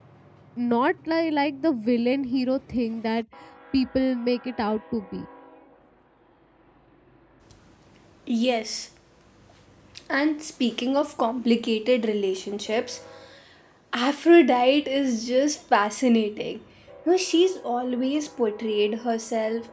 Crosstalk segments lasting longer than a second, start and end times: none

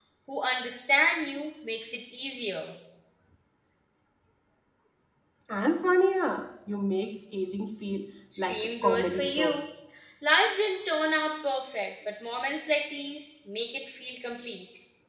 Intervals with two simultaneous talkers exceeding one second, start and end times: 8.4-9.6

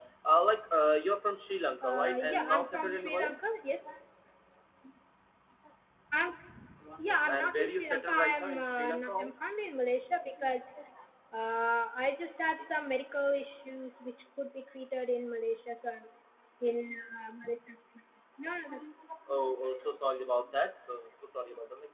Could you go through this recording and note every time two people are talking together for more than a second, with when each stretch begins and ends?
1.8-3.4, 7.3-9.3

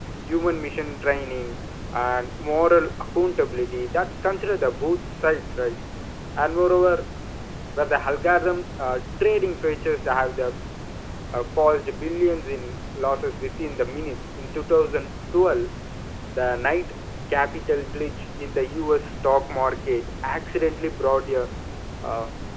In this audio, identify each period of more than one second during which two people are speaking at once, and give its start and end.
none

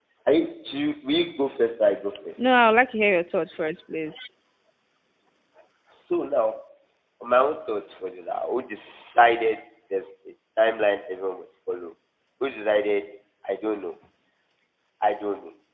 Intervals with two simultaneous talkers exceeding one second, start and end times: none

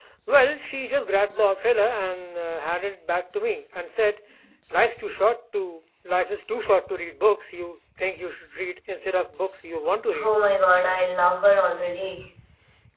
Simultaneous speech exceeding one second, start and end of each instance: none

